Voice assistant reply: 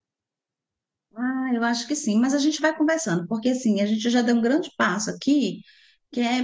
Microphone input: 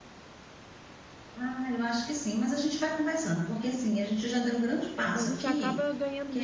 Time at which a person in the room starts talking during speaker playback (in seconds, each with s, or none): 5.1 s